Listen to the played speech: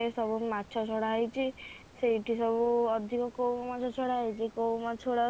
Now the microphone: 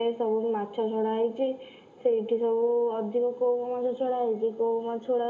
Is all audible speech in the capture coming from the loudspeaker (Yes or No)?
Yes